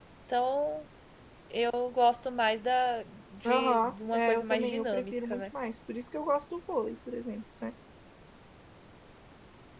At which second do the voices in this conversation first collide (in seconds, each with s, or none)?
3.5 s